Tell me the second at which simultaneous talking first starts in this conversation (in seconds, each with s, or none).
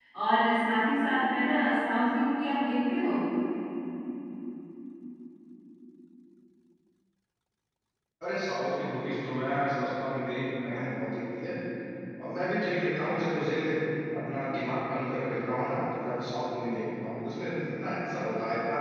none